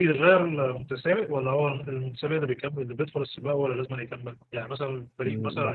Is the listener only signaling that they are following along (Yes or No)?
Yes